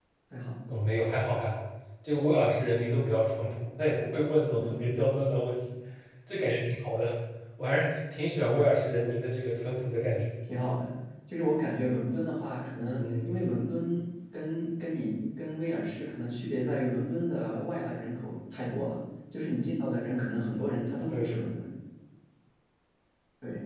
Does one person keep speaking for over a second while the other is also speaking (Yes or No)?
No